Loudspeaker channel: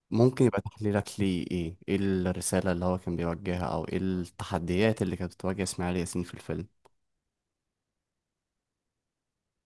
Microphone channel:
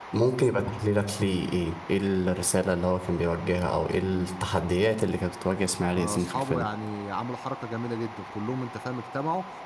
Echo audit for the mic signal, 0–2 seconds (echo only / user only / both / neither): echo only